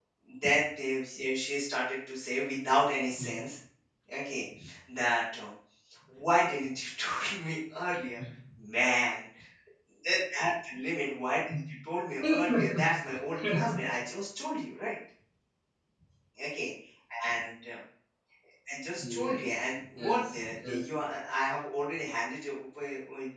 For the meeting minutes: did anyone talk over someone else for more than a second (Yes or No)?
Yes